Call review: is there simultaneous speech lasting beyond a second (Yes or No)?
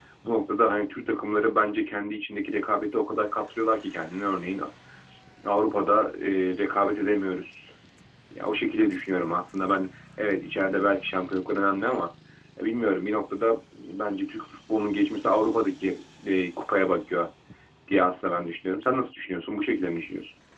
No